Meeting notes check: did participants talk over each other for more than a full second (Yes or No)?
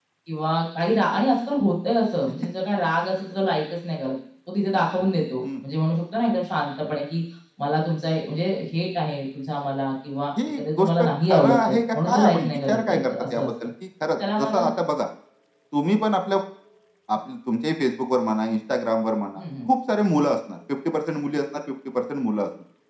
Yes